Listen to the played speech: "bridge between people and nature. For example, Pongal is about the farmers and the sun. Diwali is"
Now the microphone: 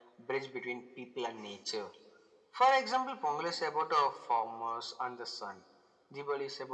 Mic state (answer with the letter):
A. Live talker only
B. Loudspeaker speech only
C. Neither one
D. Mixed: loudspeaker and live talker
B